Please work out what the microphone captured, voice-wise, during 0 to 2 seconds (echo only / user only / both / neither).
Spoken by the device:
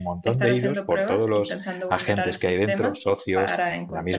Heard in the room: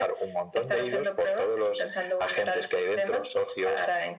echo only